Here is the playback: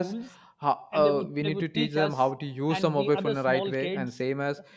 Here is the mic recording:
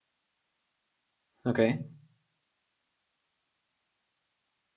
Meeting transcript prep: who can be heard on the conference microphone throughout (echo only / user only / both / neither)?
user only